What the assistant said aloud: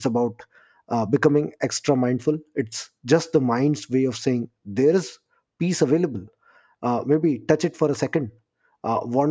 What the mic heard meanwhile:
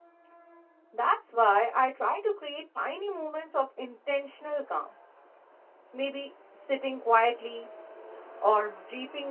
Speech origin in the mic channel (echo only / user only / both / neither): user only